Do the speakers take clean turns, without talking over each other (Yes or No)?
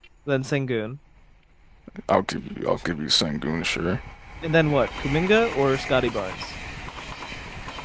Yes